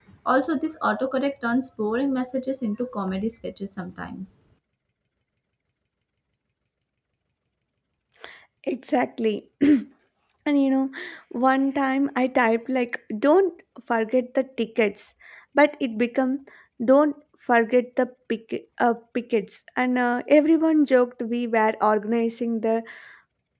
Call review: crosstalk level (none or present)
none